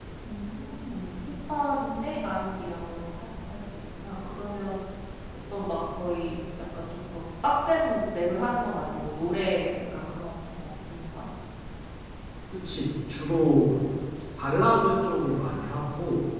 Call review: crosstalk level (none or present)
none